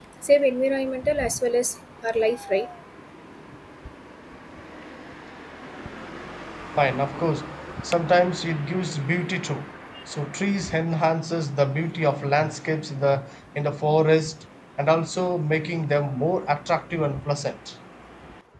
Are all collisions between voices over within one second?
Yes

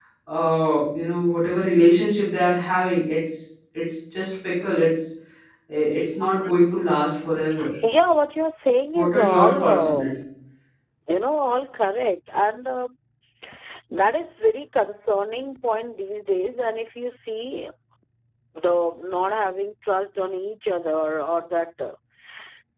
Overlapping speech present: Yes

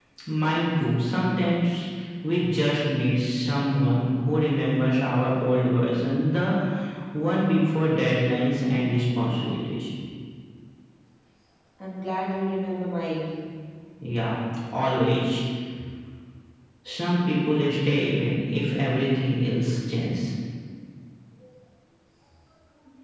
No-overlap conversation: Yes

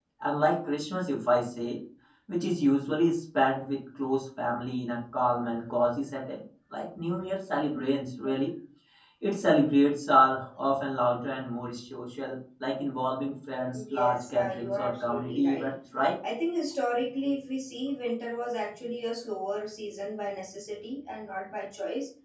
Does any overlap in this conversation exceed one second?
Yes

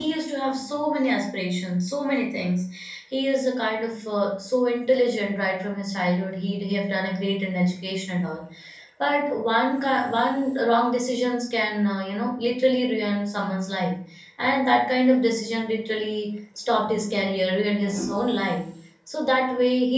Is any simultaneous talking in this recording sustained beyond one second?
No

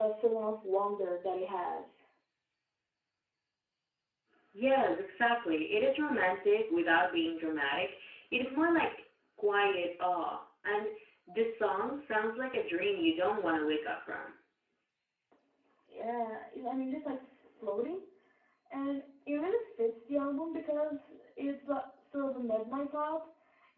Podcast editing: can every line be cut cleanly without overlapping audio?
Yes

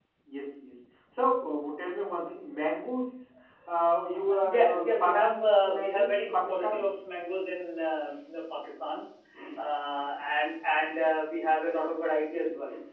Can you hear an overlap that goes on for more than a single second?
Yes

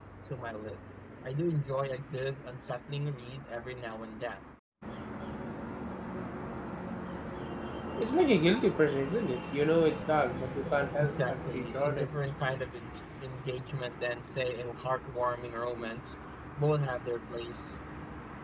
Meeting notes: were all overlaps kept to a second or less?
No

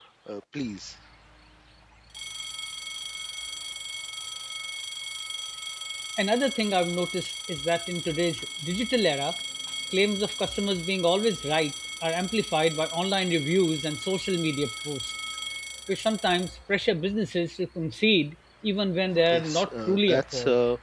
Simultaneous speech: Yes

